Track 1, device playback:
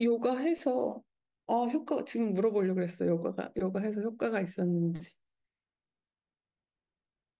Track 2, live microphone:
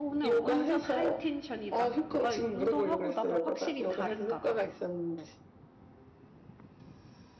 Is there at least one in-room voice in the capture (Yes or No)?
Yes